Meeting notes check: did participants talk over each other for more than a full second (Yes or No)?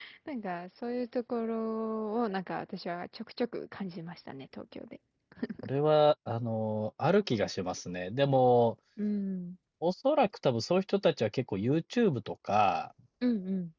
No